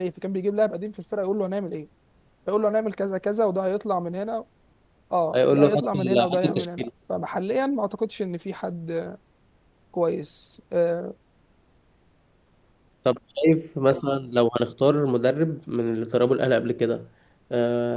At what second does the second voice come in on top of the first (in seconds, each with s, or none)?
5.3 s